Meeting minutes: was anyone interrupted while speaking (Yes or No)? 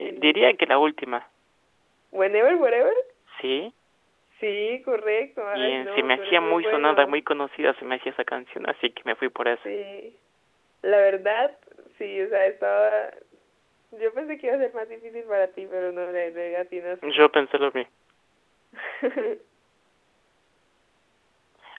Yes